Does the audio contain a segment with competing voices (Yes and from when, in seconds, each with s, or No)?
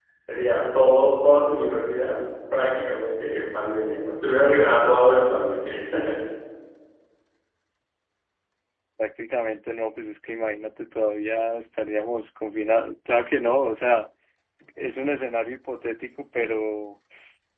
No